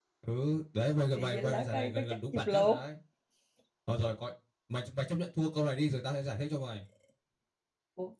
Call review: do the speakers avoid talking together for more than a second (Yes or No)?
No